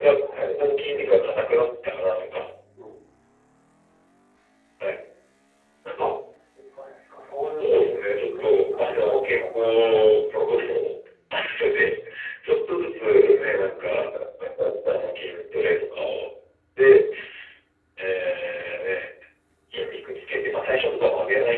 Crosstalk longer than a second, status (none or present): present